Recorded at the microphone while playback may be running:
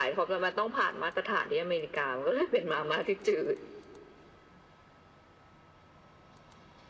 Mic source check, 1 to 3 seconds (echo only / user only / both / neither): echo only